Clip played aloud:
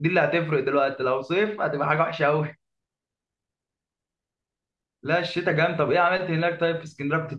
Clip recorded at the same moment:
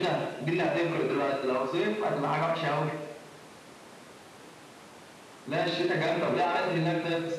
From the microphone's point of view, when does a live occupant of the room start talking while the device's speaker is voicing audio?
none

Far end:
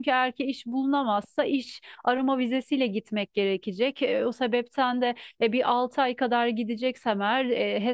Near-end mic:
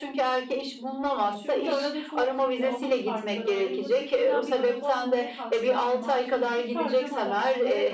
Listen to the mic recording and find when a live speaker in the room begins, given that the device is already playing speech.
1.3 s

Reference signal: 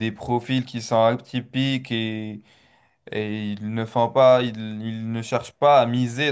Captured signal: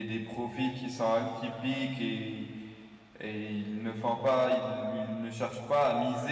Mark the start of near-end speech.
none

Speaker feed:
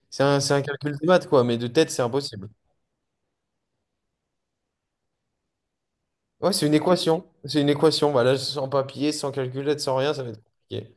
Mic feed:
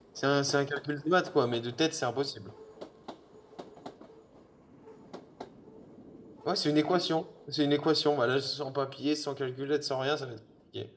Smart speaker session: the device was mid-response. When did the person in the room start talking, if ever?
none

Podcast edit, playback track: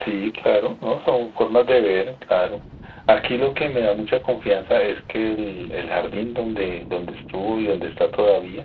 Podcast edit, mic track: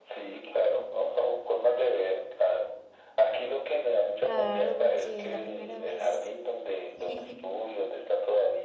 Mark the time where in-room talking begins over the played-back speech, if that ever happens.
4.2 s

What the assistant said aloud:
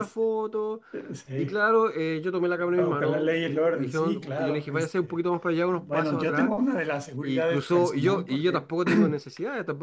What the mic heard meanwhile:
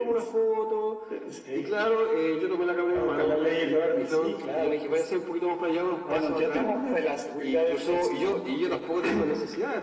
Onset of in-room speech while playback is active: none

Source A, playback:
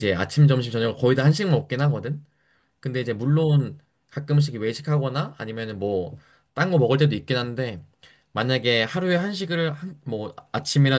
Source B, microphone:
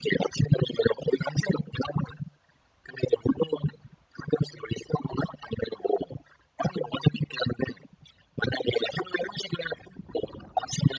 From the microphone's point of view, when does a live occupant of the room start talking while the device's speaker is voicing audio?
none

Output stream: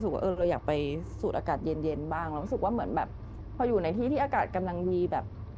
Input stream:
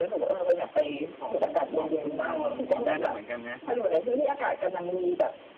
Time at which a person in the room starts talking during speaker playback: 1.2 s

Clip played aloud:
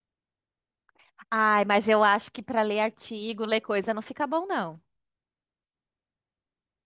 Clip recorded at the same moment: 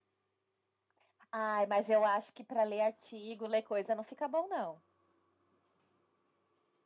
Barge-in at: none

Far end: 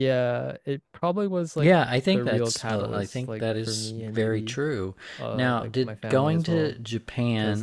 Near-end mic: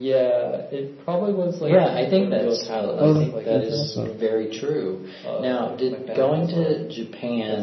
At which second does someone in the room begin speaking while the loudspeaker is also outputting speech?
3.0 s

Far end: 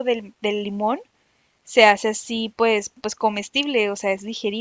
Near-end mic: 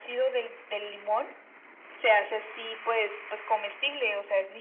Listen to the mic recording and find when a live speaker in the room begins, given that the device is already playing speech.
none

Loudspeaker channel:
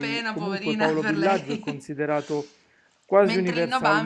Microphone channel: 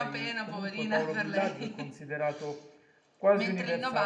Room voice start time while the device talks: none

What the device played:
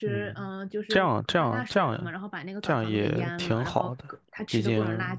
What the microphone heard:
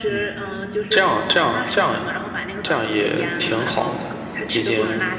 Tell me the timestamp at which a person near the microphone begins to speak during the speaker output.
none

